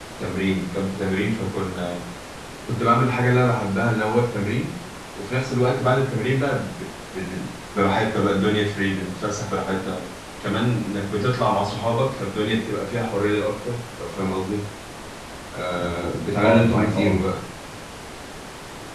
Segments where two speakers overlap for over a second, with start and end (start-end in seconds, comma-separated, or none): 15.8-17.3